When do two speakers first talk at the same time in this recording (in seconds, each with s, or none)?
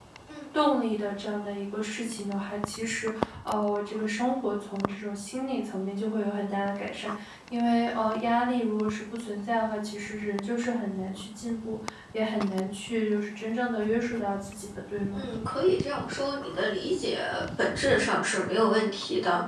none